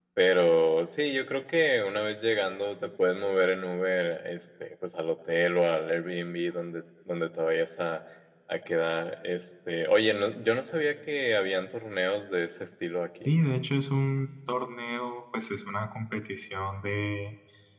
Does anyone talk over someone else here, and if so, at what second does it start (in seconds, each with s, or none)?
none